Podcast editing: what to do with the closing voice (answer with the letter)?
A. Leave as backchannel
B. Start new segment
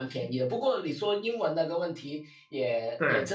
A